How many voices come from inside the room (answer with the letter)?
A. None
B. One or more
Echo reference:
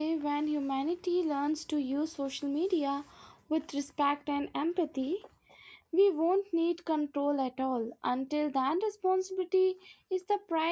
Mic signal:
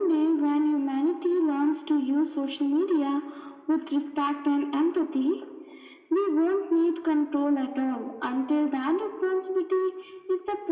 A